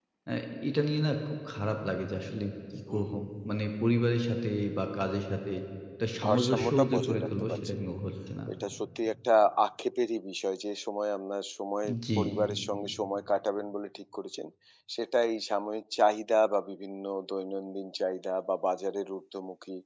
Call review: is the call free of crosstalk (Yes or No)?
No